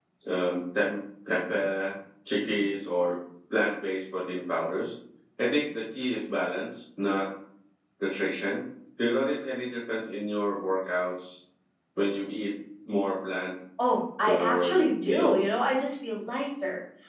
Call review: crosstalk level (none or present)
present